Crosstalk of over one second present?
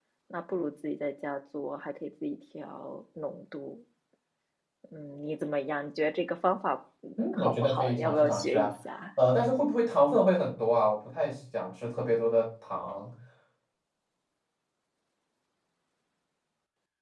Yes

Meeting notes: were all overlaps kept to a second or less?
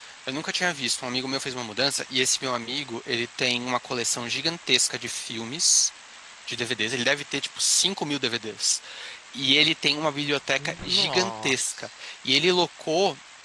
No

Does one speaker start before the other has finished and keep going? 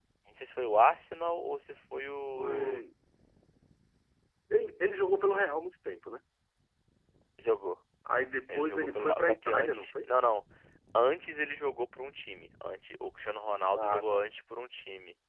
Yes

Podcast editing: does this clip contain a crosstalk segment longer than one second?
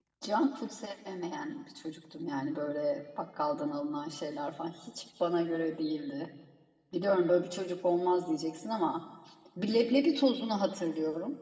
No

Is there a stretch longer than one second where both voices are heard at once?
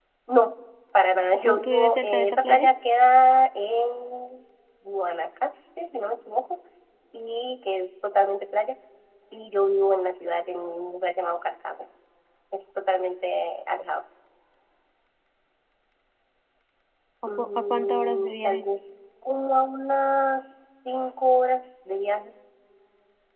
Yes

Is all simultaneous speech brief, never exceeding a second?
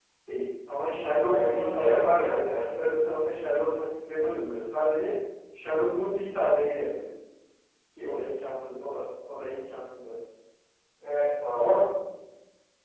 No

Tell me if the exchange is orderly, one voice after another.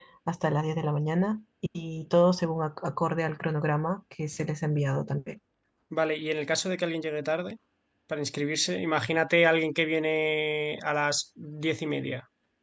Yes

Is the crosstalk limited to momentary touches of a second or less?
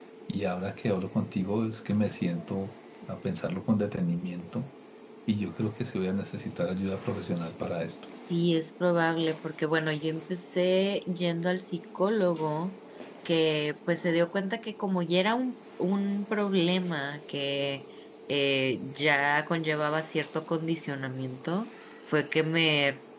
Yes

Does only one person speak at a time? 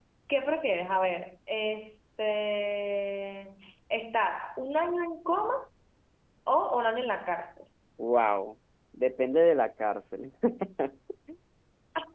Yes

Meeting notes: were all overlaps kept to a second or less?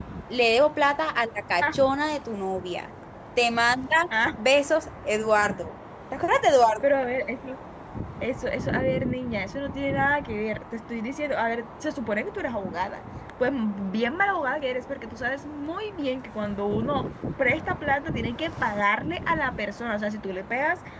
Yes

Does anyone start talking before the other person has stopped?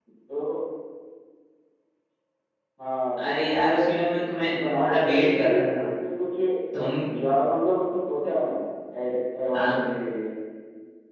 Yes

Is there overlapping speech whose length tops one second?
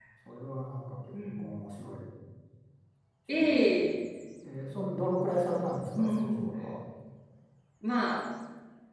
No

